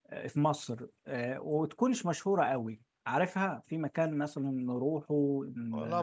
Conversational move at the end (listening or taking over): taking over